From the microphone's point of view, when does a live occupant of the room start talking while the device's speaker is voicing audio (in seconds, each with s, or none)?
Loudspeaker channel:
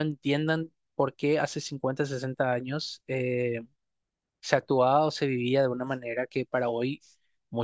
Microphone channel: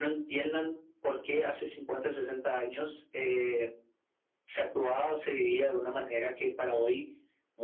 none